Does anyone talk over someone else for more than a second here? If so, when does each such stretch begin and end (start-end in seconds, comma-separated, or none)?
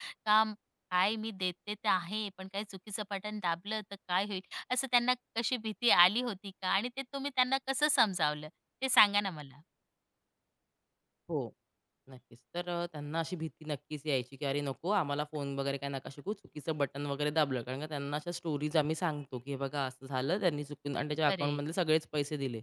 none